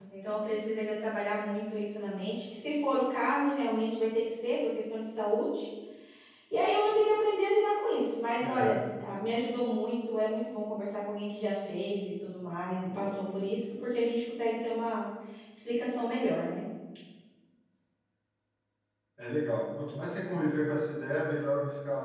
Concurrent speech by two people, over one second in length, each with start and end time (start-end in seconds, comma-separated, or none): none